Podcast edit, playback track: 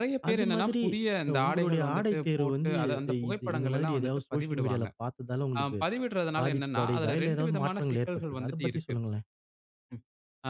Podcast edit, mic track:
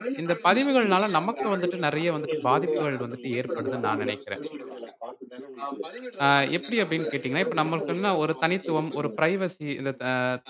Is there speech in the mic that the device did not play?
Yes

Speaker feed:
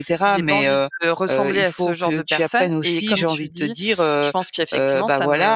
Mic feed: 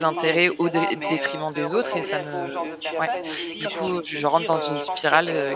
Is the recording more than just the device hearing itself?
Yes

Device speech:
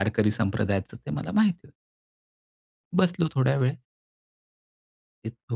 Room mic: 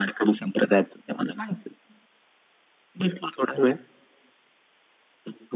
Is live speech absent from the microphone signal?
Yes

